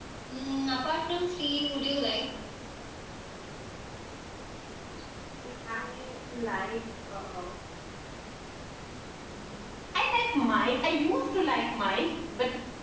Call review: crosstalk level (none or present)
none